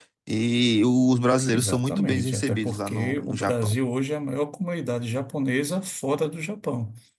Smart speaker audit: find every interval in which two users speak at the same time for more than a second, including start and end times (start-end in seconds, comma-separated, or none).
1.5-3.7